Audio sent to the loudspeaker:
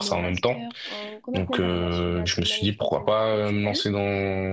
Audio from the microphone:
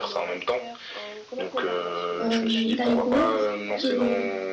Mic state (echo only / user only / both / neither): both